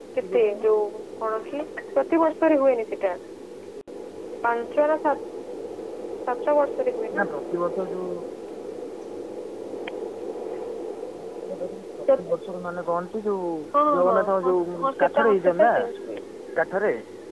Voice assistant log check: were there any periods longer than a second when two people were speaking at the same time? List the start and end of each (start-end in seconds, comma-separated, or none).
14.0-15.9